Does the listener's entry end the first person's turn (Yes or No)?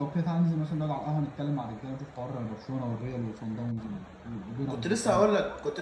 Yes